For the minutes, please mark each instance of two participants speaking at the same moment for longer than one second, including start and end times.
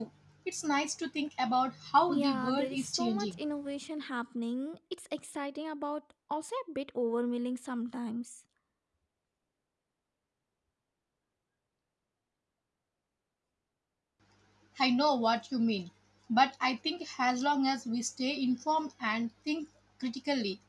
2.1-3.4

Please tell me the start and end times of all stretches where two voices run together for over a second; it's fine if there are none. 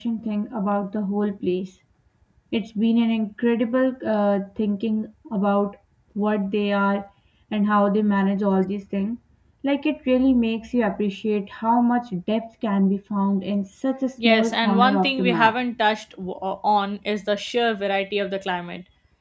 14.2-15.6

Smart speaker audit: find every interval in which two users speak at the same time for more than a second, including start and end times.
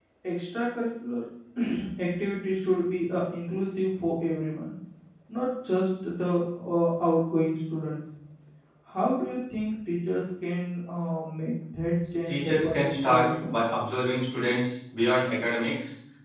12.3-13.5

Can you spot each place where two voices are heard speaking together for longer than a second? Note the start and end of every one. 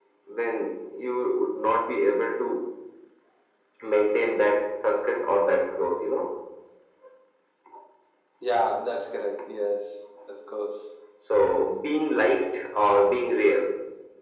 none

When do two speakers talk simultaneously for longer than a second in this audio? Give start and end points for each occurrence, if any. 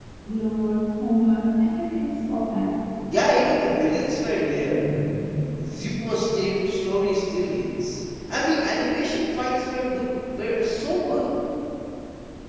none

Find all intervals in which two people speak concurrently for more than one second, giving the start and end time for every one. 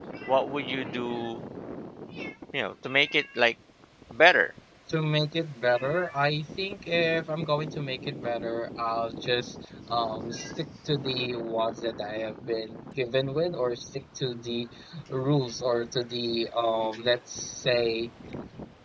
none

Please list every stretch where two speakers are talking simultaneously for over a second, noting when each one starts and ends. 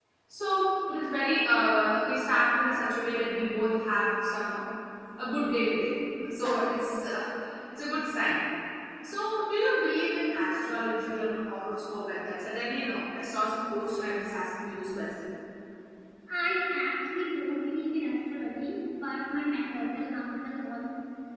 none

